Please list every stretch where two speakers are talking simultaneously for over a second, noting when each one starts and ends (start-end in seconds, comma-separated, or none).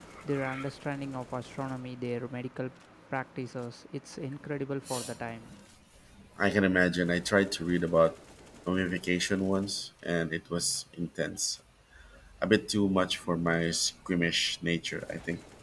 none